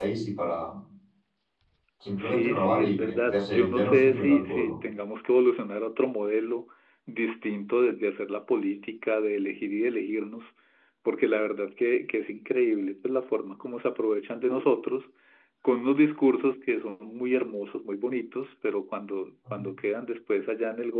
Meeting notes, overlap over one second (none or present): present